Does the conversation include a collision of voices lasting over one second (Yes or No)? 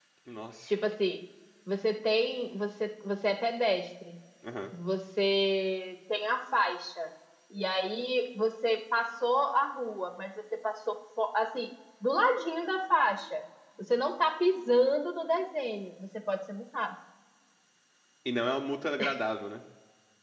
No